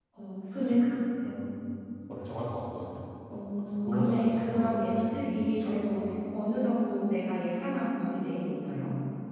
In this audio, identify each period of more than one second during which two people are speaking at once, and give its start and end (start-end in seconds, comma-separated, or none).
3.7-6.0